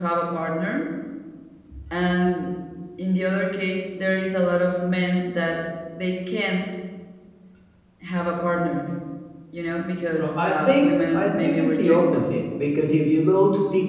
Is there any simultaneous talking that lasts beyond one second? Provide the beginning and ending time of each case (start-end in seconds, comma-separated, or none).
10.2-12.4